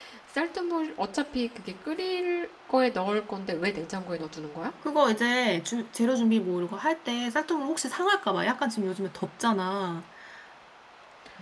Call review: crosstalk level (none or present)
none